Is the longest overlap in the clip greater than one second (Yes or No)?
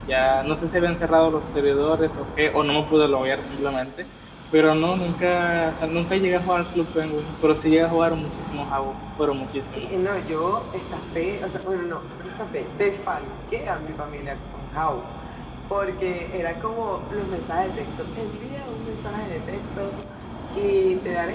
No